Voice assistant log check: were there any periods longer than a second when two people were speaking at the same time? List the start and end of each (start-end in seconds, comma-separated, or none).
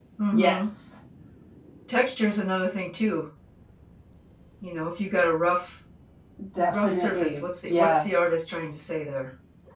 6.7-8.1